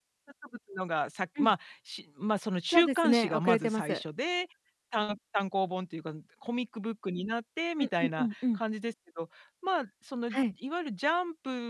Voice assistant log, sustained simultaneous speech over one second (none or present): present